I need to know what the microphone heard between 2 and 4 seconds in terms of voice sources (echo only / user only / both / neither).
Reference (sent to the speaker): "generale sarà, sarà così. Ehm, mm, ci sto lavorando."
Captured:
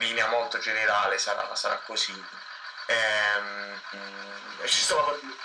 echo only